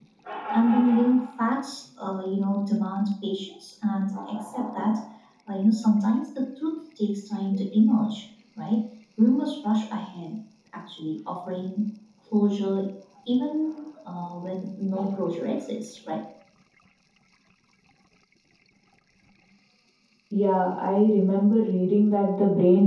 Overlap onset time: none

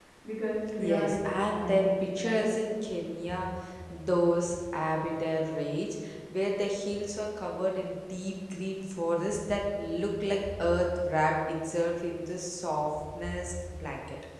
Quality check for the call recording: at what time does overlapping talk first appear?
1 s

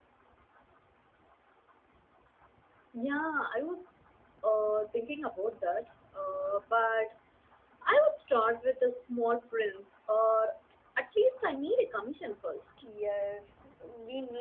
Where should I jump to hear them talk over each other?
none

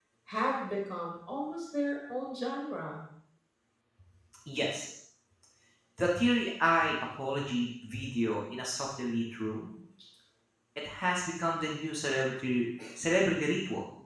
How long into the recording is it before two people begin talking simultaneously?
none

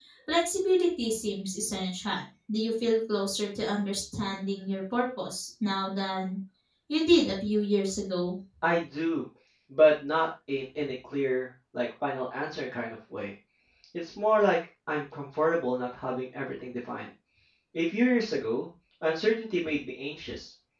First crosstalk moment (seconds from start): none

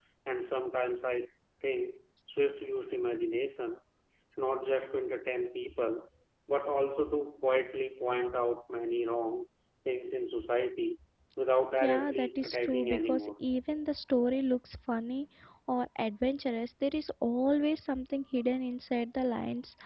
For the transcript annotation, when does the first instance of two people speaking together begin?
12 s

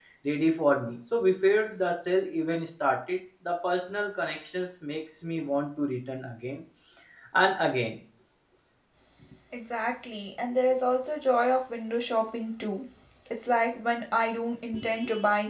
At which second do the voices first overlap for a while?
none

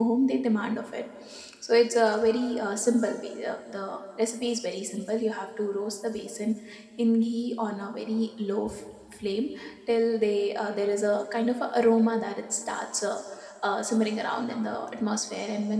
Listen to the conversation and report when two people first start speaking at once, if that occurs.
none

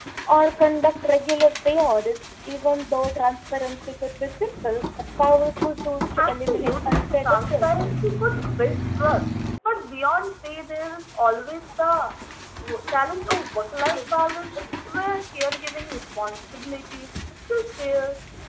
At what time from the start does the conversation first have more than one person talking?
6 s

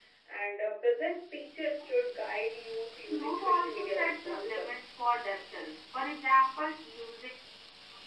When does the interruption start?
3 s

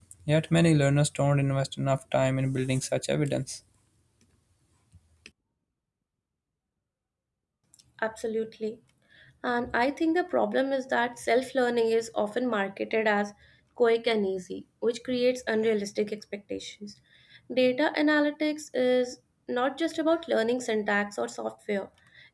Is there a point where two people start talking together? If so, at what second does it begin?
none

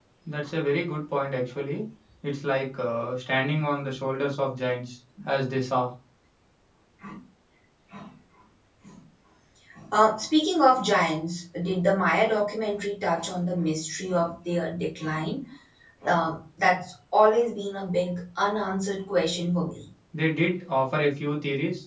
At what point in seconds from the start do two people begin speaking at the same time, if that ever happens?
none

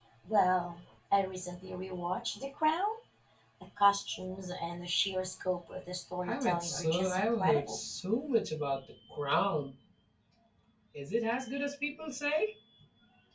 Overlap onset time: 6 s

